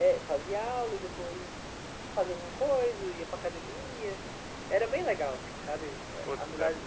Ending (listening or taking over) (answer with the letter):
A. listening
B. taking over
B